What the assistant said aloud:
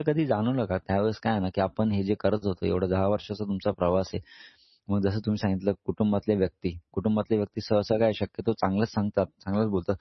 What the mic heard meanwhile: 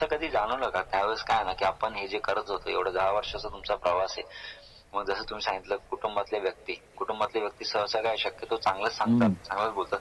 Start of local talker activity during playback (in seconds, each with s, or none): 9.1 s